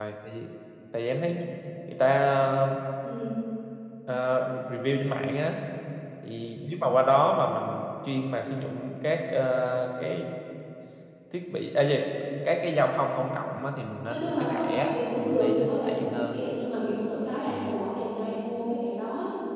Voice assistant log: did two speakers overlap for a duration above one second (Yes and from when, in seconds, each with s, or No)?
Yes, from 14.1 s